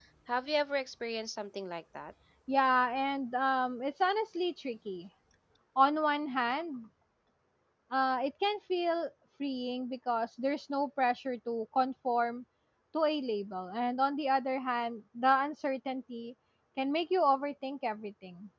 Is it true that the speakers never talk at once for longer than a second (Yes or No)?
Yes